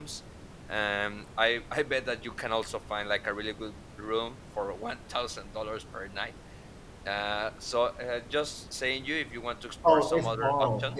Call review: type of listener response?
taking over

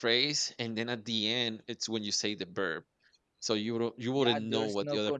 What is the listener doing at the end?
taking over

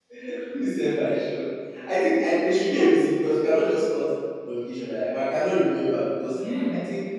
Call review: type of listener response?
listening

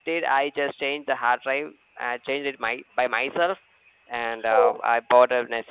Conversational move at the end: listening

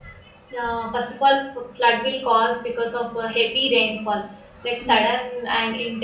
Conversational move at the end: listening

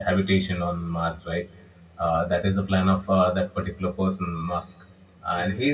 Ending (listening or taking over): listening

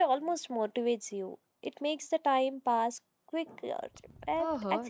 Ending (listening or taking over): taking over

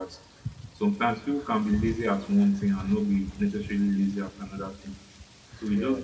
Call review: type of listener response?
listening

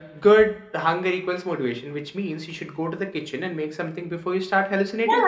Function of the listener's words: taking over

